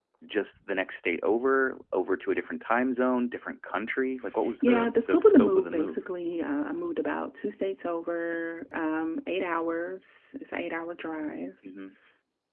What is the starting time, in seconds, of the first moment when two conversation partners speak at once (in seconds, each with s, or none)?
4.4 s